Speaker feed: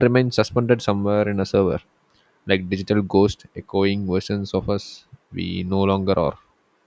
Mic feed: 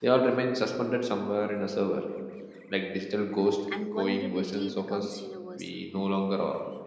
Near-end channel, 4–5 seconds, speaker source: both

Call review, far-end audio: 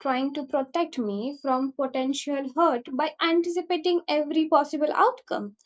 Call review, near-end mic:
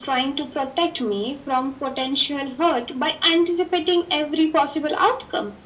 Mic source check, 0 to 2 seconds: echo only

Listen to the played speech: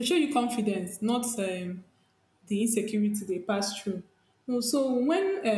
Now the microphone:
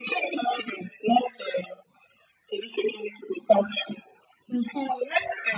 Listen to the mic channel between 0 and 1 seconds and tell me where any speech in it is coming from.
echo only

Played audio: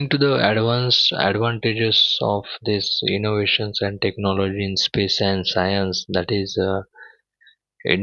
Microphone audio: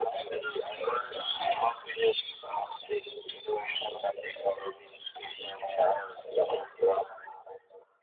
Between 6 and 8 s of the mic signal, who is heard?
echo only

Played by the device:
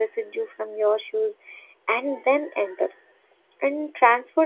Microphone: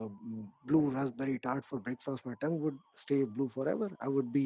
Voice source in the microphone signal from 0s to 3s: user only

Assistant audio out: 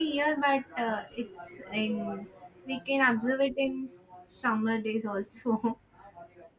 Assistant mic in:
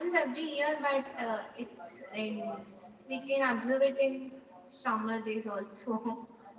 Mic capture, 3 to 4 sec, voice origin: both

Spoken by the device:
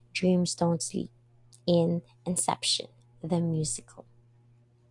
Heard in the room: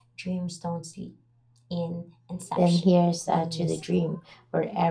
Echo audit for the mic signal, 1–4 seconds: both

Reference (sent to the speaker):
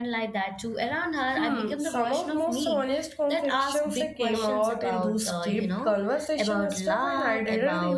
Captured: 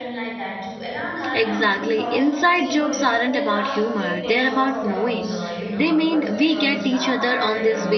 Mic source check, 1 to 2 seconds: both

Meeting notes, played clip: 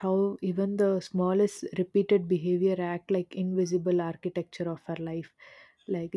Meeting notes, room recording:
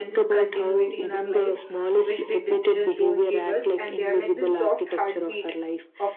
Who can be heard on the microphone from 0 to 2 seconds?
both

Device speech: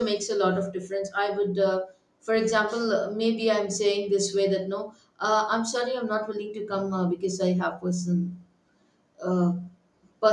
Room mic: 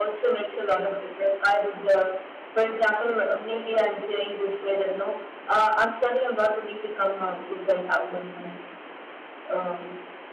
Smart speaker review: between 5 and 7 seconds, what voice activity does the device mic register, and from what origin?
echo only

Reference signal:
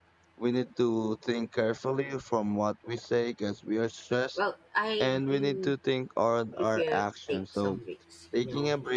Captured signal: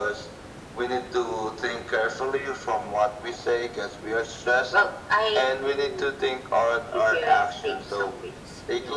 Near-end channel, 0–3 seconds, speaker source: echo only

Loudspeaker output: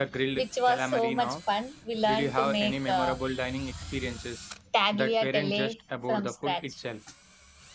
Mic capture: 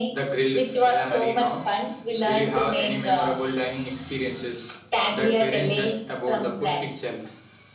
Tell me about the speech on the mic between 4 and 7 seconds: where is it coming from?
echo only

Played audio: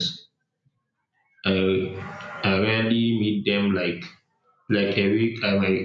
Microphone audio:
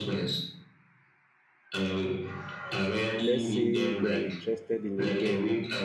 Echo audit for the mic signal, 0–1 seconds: echo only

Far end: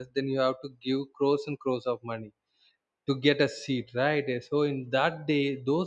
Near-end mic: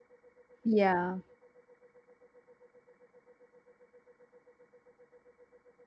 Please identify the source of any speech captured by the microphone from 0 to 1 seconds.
user only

